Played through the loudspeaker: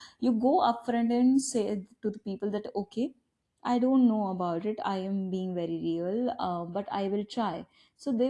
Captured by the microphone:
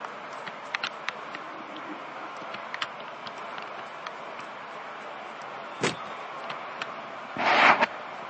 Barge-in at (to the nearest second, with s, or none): none